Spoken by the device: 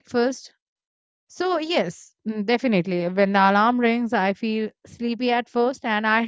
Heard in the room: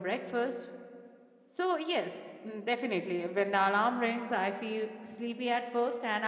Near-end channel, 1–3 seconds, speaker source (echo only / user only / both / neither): echo only